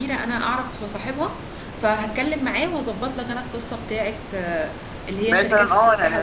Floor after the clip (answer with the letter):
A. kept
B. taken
B